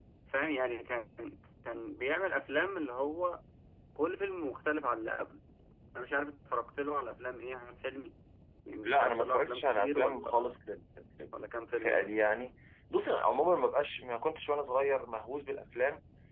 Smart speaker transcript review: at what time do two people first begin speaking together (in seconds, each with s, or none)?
8.8 s